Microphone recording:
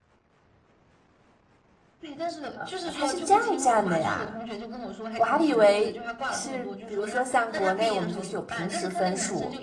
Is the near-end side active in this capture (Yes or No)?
Yes